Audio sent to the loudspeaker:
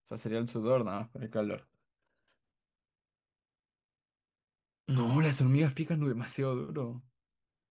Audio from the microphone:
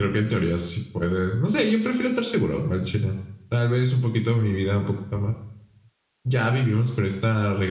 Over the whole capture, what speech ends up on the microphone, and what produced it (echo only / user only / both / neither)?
user only